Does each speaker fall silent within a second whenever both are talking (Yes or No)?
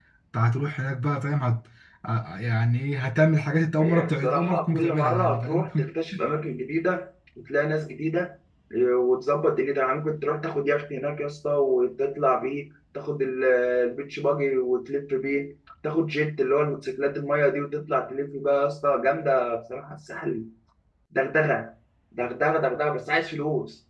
No